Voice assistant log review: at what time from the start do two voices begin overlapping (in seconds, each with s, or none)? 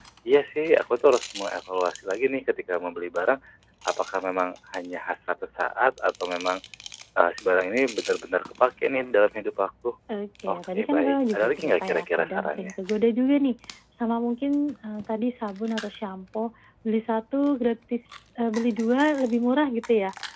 10.5 s